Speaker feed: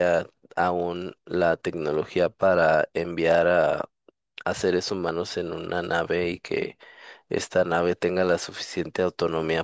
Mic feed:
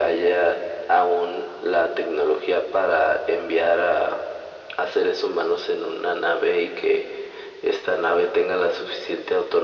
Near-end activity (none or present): none